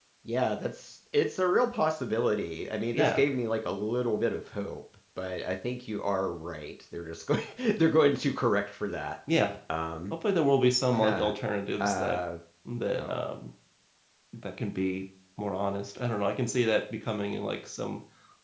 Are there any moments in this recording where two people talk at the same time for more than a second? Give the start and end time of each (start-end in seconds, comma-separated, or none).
none